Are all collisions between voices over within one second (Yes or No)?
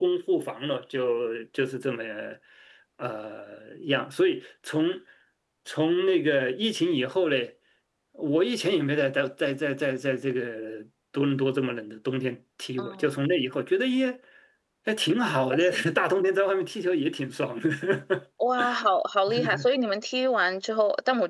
Yes